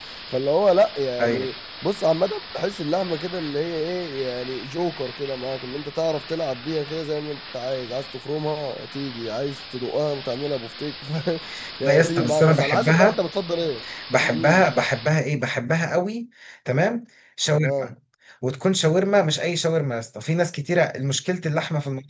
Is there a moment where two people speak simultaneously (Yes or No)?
Yes